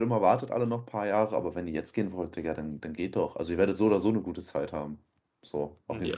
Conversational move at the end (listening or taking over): taking over